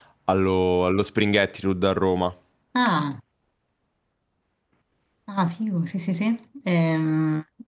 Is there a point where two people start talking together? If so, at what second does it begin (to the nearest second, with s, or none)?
none